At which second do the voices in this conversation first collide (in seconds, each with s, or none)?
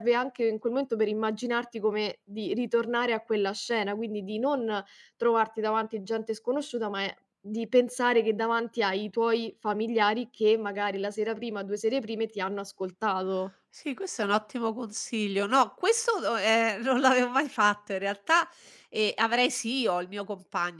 none